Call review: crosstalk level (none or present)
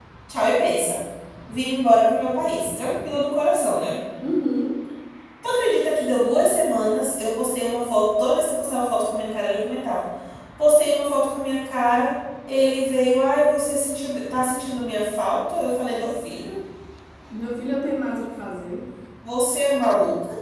none